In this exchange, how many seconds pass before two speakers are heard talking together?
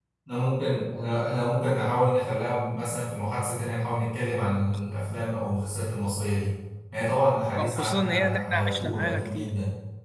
7.6 s

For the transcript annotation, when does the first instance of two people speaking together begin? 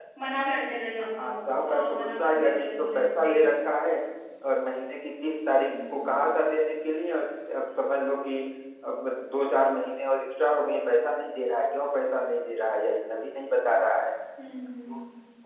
1.2 s

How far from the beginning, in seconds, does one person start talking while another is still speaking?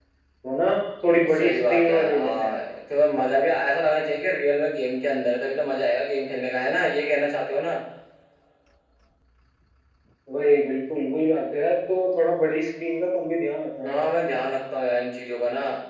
1.3 s

